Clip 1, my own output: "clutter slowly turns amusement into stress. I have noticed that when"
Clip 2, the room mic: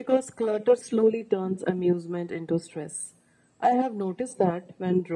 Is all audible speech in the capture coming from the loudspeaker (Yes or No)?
Yes